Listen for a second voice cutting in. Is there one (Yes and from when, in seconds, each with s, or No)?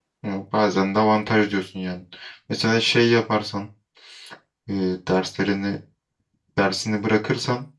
No